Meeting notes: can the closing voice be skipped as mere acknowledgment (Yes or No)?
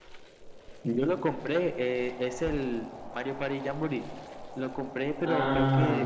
Yes